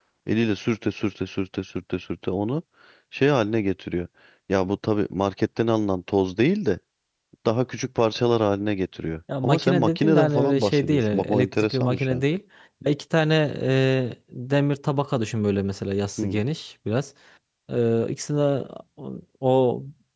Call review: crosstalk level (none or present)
present